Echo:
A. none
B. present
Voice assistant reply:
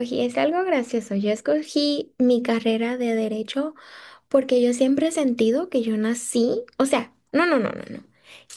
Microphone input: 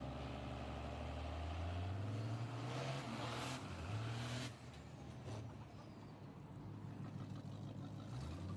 A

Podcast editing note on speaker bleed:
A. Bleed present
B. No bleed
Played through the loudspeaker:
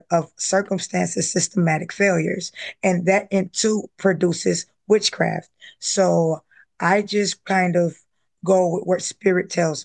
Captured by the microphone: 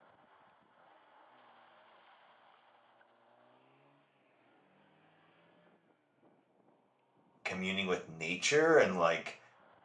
B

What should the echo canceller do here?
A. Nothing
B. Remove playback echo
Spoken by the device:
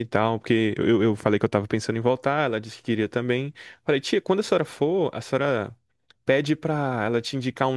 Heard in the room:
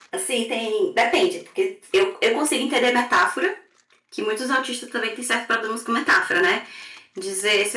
A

